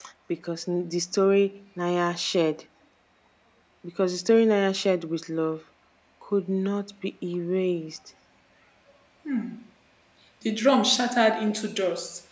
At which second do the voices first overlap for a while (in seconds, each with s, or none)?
none